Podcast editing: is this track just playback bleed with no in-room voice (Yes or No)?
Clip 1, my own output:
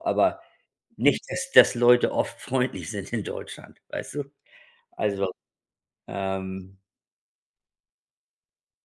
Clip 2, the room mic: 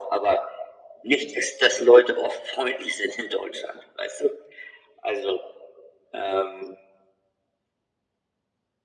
Yes